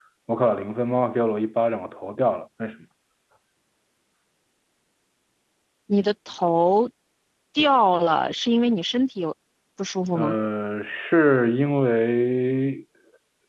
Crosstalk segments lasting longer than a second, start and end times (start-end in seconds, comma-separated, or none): none